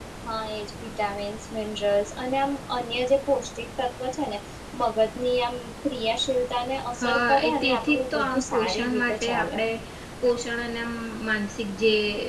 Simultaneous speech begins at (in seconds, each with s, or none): 7.0 s